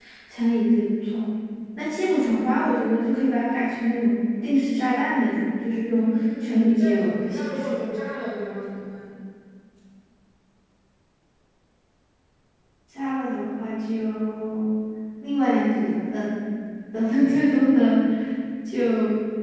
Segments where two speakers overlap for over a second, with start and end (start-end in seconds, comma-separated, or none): 5.9-7.7